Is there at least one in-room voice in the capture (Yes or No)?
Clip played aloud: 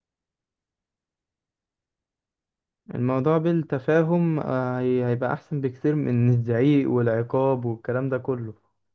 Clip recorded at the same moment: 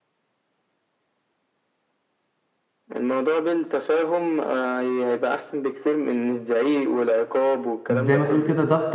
Yes